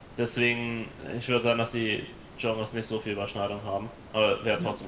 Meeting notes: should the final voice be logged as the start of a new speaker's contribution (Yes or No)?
Yes